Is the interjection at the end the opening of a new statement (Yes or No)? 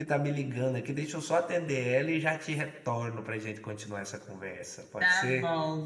Yes